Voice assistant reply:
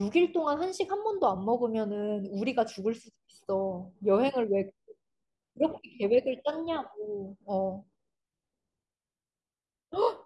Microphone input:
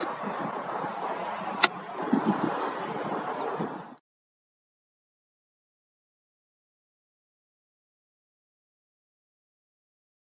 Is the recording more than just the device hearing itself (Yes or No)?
No